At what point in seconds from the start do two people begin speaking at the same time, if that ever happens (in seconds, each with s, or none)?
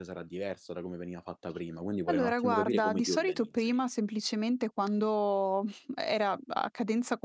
2.1 s